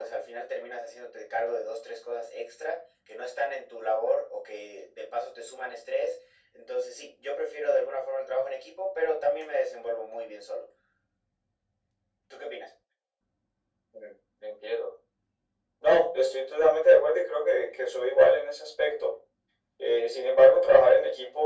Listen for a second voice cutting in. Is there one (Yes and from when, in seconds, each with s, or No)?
No